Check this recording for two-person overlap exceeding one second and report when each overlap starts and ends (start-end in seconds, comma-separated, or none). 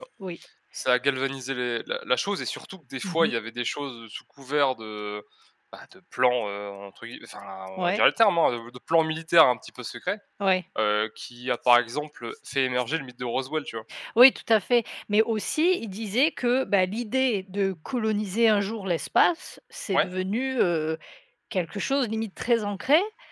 none